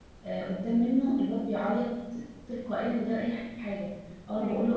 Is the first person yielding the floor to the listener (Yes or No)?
No